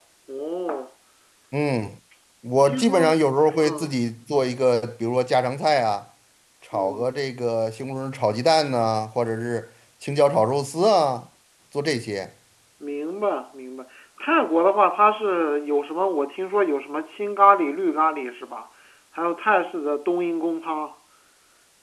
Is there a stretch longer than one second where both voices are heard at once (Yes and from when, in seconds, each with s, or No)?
No